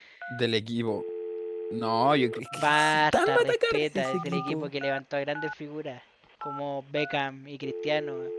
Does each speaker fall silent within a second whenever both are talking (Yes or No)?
No